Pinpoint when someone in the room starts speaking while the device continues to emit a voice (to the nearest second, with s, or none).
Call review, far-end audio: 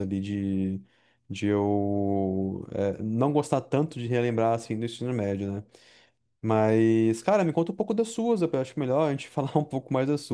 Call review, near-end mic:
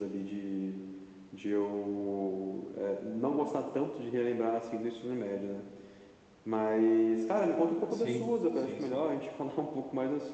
8 s